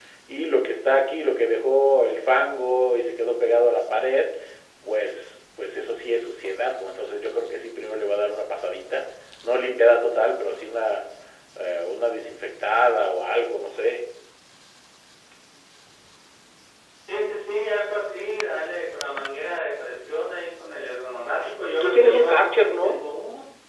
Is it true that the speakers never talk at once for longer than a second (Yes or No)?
No